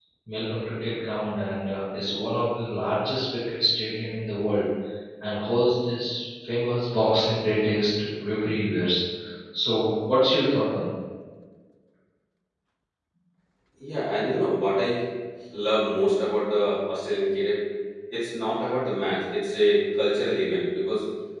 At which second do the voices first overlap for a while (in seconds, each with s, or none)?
none